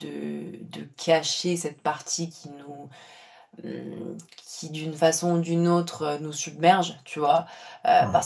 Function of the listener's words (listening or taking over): listening